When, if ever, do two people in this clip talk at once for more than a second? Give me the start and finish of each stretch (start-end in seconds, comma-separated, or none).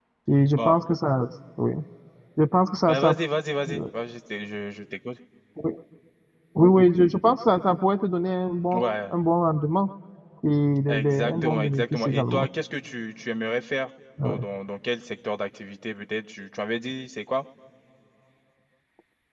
10.9-12.5